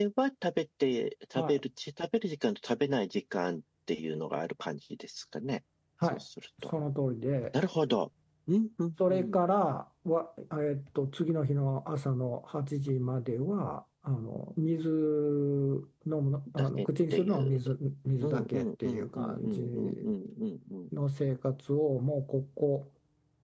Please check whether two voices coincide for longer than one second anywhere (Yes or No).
Yes